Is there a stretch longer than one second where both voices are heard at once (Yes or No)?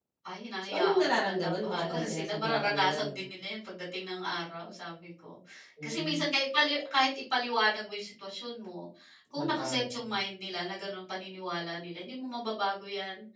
Yes